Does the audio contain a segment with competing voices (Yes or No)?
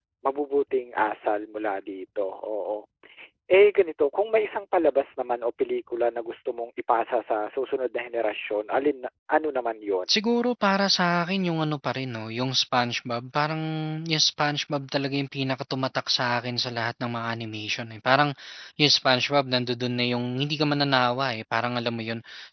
No